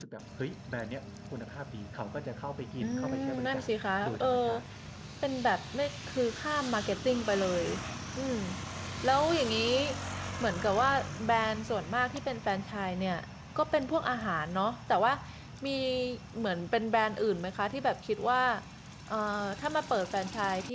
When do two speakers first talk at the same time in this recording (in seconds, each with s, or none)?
2.8 s